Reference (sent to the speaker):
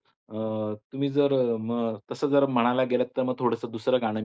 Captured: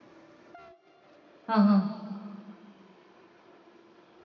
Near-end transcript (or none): हं, हं.